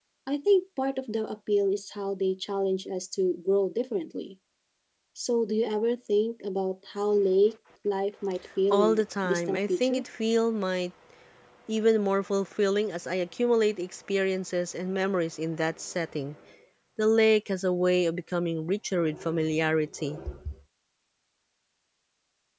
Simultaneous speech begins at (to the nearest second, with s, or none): 9 s